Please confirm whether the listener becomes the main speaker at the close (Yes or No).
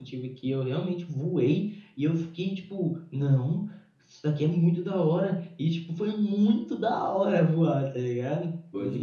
Yes